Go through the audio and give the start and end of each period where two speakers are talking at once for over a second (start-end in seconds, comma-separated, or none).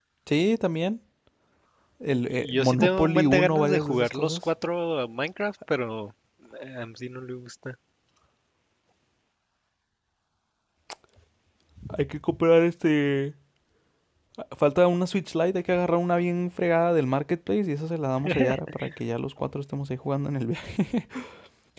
2.4-4.4